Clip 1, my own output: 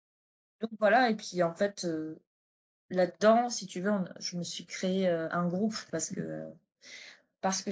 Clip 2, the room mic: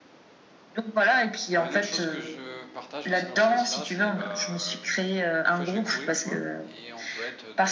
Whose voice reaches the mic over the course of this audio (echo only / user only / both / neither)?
both